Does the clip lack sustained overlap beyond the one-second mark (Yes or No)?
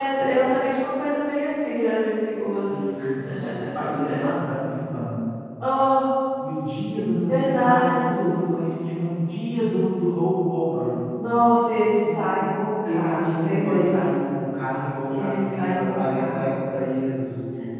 No